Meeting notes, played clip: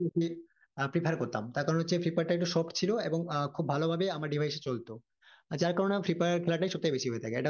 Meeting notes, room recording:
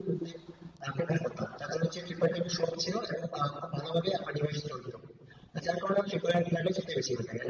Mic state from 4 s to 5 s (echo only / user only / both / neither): echo only